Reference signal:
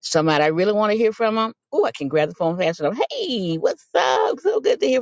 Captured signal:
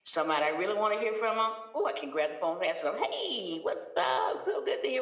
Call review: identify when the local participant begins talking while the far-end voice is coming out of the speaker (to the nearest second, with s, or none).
none